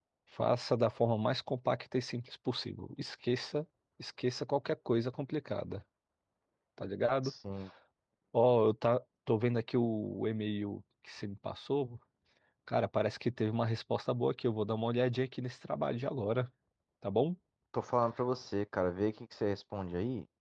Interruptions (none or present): none